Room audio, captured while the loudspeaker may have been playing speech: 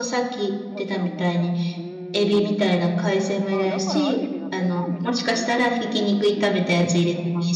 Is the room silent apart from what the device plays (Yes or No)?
No